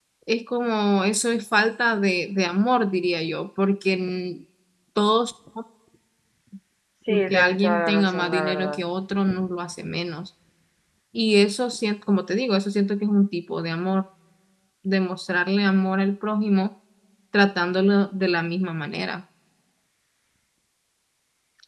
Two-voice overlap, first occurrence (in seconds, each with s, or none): 7.1 s